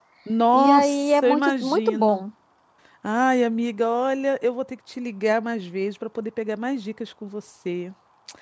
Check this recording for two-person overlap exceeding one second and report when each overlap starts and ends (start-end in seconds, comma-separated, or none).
0.5-2.2